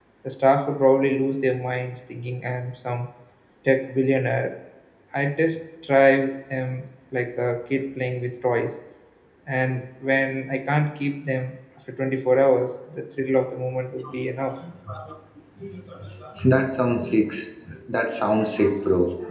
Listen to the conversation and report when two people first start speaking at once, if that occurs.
none

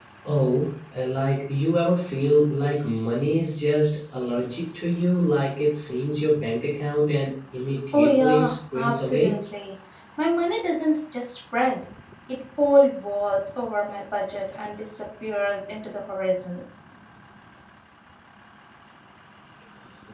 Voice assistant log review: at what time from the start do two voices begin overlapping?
8 s

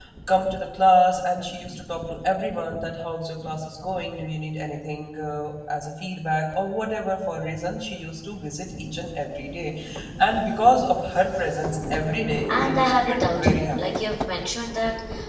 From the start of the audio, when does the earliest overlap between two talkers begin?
12 s

